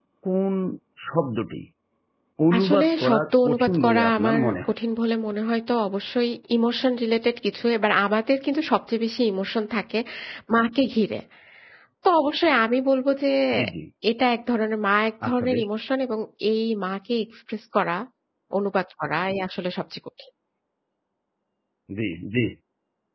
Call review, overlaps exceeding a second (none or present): present